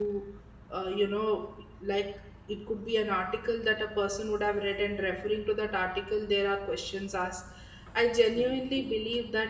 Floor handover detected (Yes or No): No